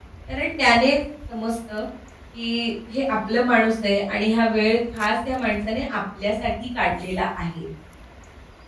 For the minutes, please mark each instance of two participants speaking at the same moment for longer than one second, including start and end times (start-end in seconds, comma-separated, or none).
none